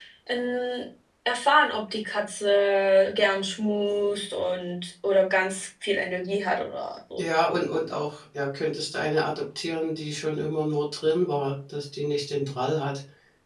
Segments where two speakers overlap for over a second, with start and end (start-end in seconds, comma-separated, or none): none